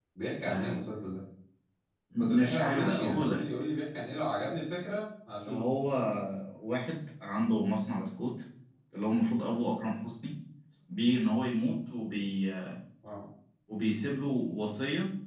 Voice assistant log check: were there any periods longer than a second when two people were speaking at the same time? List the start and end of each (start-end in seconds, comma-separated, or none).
2.2-3.5